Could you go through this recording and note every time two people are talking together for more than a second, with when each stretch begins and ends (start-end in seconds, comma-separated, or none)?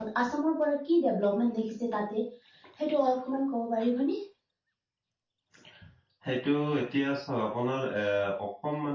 none